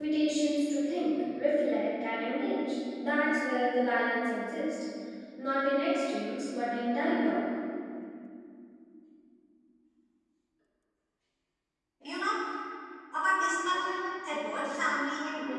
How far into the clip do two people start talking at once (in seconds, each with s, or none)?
none